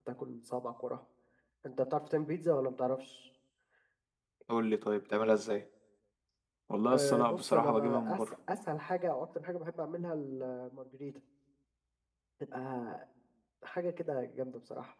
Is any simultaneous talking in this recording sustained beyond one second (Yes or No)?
Yes